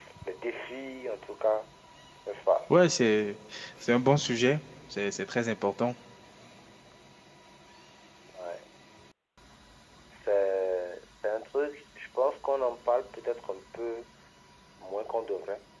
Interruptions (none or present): none